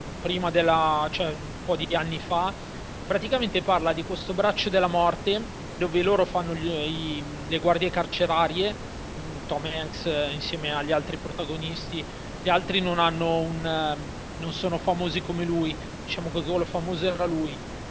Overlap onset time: none

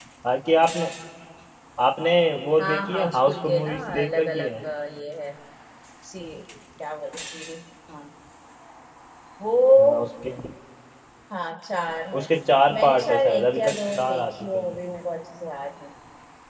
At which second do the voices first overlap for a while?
2.6 s

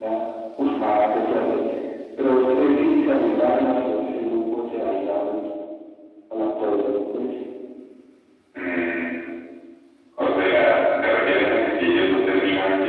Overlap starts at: none

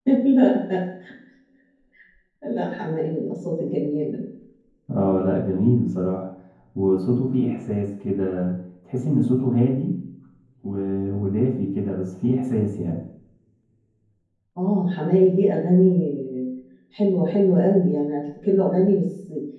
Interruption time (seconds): none

